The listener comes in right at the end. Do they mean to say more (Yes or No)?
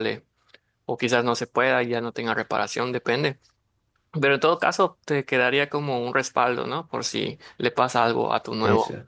No